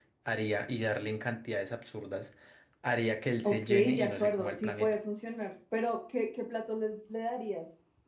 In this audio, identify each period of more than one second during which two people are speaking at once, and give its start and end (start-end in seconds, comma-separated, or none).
3.4-5.0